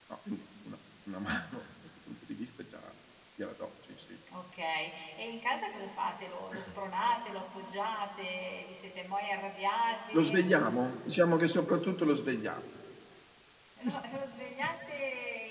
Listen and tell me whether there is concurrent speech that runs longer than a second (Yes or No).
No